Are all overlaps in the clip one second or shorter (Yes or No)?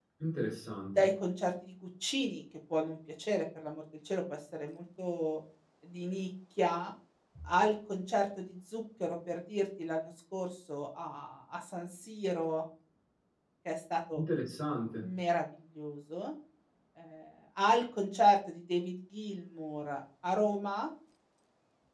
Yes